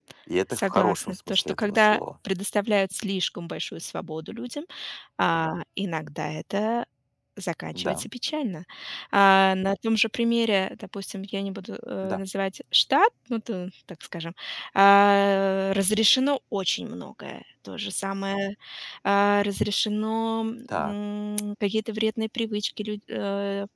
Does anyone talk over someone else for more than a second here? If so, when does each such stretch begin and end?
0.5-2.0

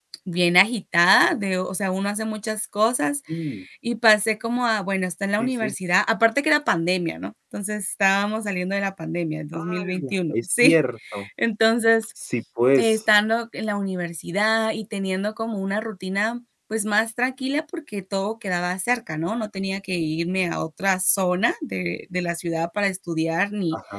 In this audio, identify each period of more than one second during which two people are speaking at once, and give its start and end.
9.5-10.8

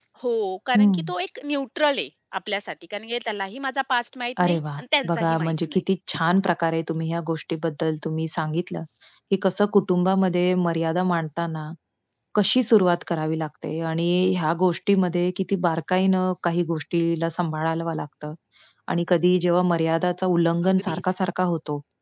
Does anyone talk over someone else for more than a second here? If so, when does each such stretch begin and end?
4.4-5.8

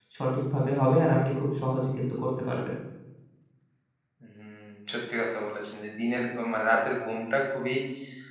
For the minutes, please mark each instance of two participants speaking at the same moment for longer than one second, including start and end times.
none

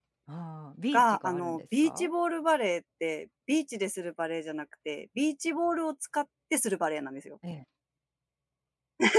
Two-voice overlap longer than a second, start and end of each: 0.9-2.1

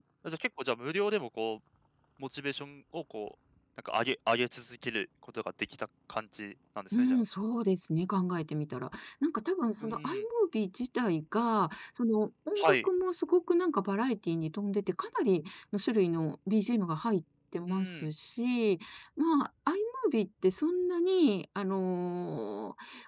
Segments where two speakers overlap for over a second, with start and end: none

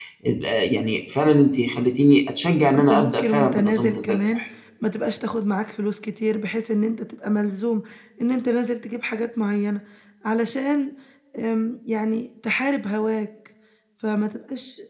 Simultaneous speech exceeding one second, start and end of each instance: 2.9-4.4

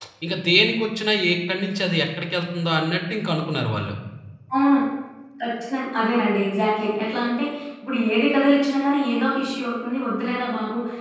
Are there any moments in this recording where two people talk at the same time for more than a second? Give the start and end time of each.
none

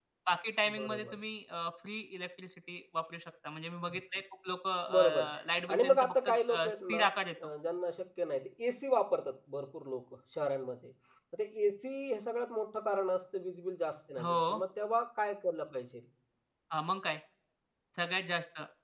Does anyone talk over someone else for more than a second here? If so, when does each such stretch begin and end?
5.7-7.0

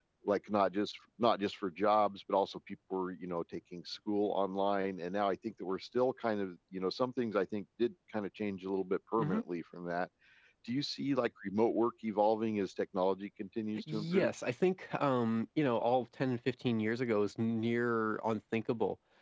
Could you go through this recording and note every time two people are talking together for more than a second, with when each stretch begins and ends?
none

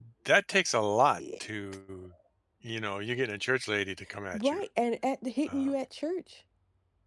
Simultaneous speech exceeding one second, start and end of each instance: none

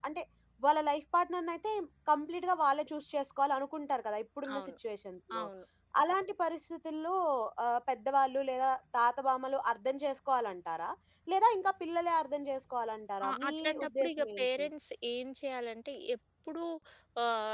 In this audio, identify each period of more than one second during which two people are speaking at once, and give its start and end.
13.2-14.7

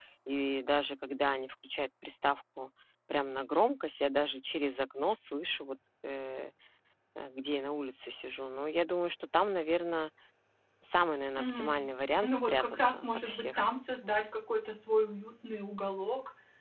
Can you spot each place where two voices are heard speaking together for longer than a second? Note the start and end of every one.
12.2-13.6

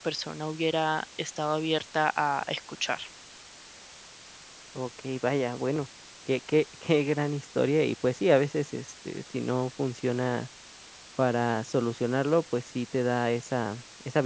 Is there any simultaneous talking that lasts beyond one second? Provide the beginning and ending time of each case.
none

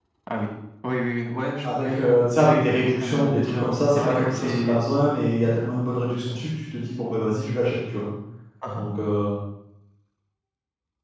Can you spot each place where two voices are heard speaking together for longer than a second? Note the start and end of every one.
2.9-4.8

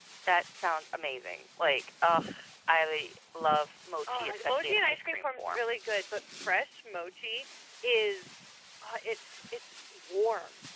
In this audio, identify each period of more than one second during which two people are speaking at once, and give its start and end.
4.1-5.6

